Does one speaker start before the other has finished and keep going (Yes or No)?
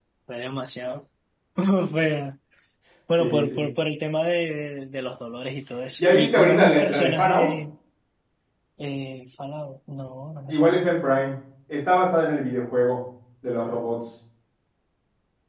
Yes